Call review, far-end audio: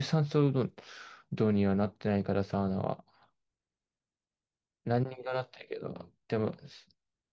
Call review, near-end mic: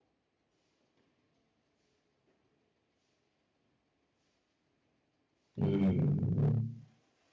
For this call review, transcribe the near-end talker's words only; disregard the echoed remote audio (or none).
ーん。